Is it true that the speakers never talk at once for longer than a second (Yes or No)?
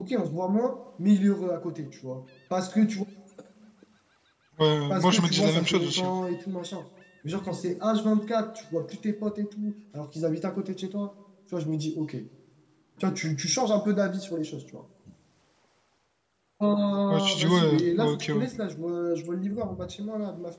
No